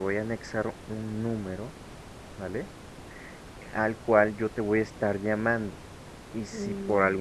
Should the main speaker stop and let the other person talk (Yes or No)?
No